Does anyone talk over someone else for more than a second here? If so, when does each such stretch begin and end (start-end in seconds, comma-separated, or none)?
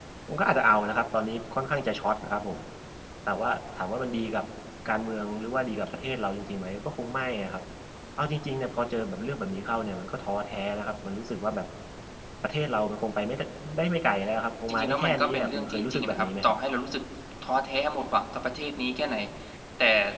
14.7-16.5